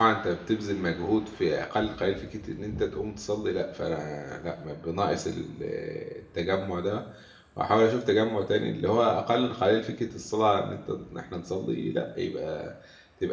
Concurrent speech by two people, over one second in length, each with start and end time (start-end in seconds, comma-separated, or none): none